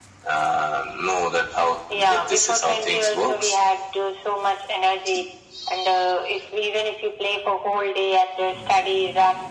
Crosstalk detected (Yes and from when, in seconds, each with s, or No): Yes, from 1.9 s